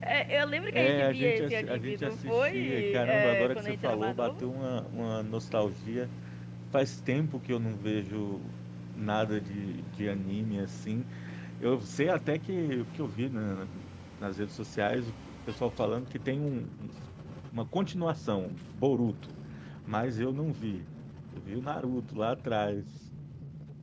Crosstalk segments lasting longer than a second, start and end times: 0.7-4.4

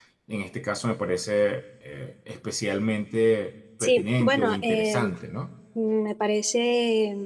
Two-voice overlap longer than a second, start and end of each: 3.8-5.1

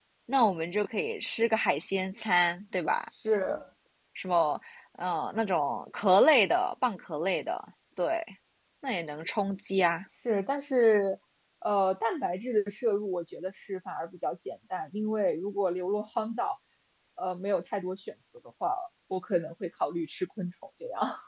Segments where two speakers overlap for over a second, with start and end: none

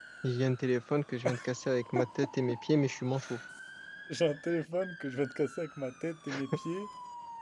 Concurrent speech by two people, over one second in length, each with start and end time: none

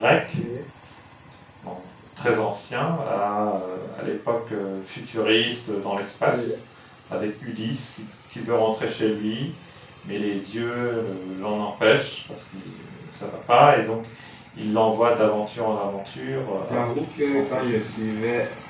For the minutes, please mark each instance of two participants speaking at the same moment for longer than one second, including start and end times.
16.7-17.9

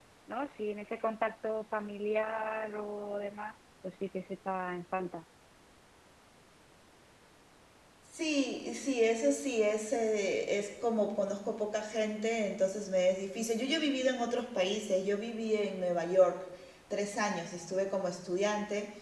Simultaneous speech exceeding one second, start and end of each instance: none

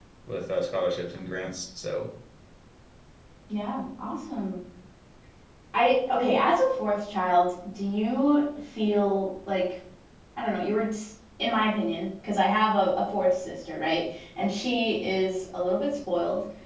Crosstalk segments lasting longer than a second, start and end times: none

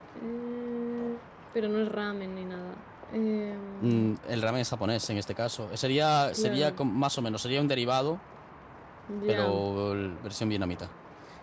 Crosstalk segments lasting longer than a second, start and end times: none

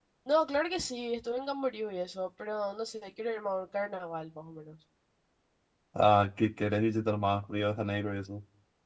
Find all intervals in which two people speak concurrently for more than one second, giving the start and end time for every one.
none

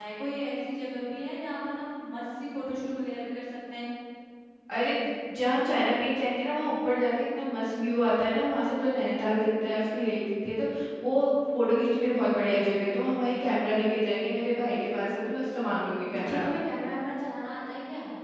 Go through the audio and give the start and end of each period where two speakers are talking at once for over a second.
none

